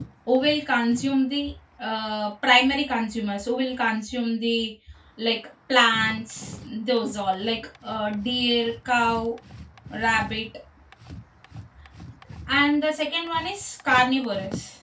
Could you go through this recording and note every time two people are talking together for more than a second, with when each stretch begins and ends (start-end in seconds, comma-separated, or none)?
none